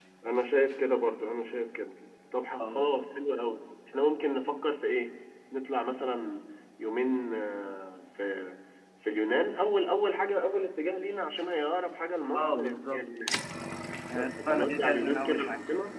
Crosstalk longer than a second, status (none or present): present